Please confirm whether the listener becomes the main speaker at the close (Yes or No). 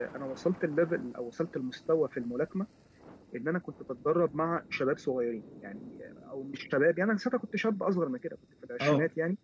No